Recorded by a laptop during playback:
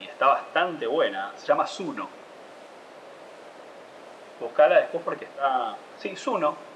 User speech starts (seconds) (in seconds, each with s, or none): none